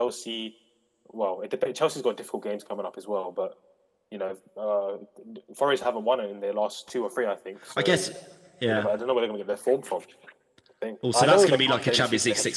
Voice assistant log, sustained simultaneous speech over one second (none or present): present